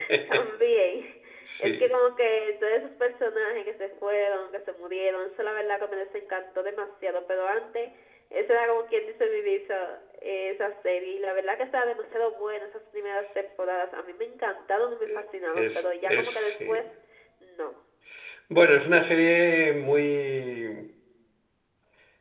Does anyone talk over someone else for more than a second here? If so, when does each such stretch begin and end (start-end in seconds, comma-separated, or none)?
15.6-16.8